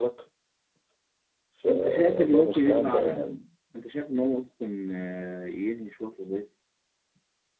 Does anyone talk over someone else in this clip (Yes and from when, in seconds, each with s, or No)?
Yes, from 1.7 s